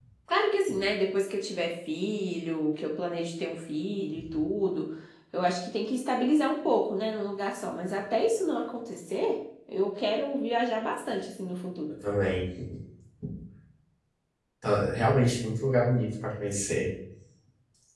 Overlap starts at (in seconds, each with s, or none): none